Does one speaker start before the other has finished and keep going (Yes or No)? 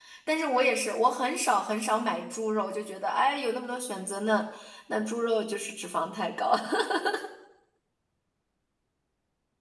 No